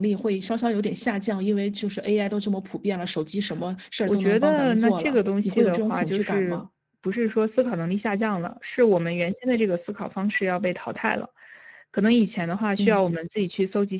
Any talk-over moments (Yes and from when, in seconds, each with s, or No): Yes, from 4.1 s